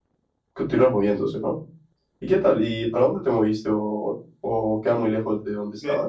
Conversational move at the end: taking over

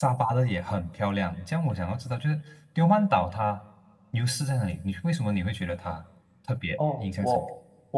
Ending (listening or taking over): taking over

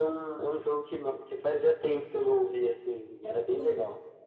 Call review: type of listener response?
taking over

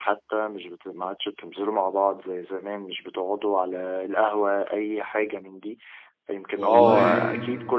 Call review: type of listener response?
listening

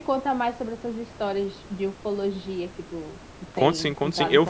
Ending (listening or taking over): taking over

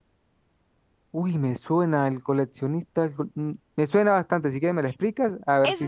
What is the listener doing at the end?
taking over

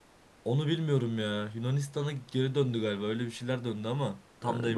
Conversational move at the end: taking over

